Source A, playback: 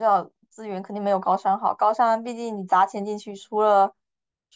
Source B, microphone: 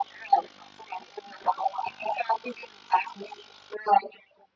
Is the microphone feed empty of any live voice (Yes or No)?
Yes